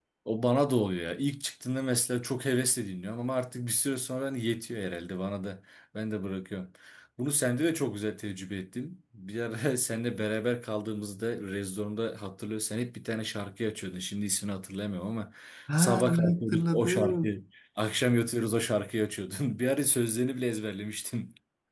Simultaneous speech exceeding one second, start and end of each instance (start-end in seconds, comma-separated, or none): 15.8-17.3